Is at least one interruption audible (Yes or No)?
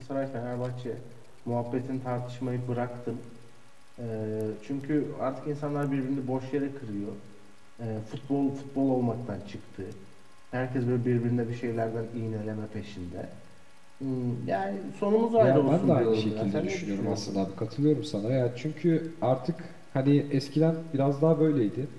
Yes